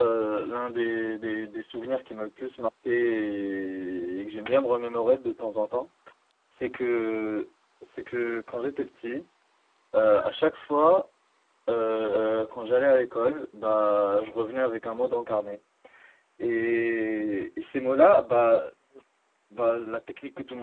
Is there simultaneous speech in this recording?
No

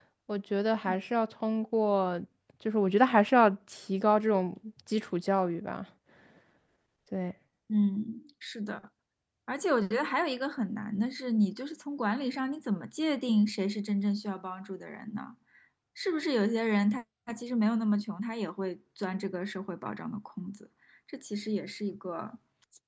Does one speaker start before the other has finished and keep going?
No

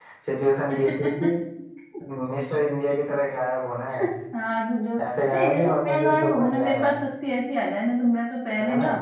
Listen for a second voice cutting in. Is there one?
Yes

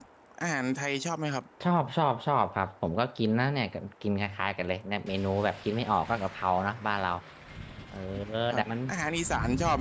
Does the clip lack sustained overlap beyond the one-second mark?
Yes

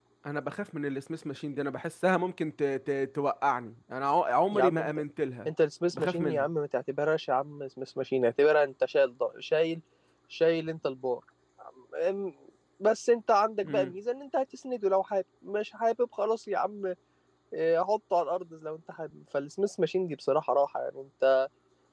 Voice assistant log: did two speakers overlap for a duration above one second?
No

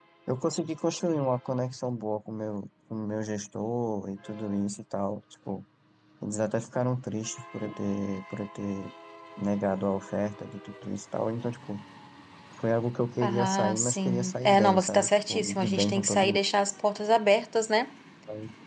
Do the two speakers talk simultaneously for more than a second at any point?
Yes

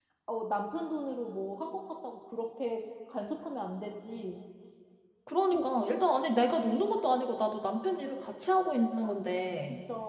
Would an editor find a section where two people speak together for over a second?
No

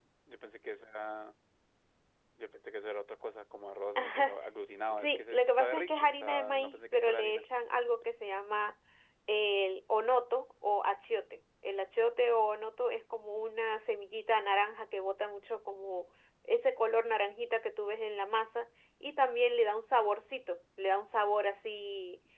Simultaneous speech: Yes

